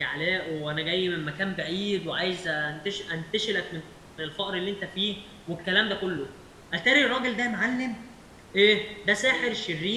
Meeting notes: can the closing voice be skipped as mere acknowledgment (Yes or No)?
Yes